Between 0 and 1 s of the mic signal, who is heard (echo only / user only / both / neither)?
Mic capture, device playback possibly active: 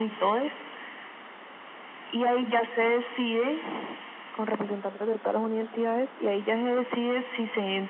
echo only